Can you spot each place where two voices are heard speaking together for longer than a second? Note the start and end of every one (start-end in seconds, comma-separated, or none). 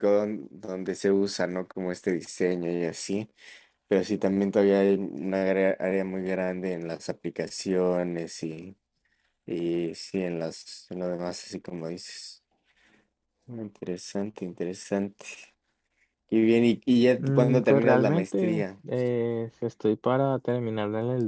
17.2-18.6